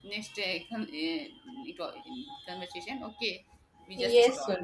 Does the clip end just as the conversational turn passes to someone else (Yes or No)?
Yes